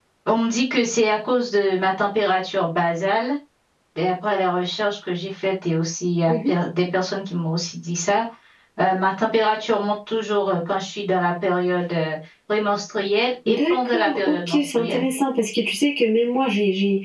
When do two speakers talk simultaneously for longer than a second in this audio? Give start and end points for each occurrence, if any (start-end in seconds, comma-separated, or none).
13.5-15.0